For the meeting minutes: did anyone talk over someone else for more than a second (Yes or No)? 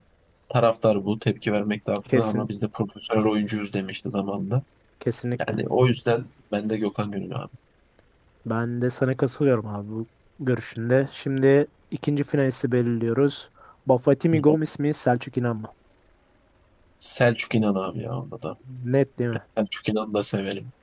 No